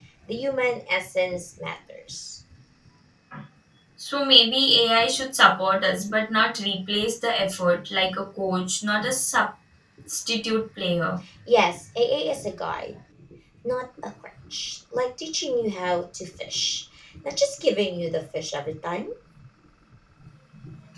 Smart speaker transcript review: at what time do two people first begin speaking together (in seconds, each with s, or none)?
none